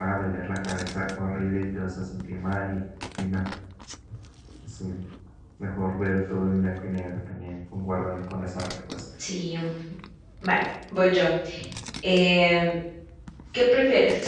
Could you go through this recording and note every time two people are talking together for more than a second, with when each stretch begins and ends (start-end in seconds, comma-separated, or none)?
none